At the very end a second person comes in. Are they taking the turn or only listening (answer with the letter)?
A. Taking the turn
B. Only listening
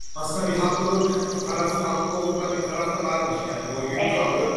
B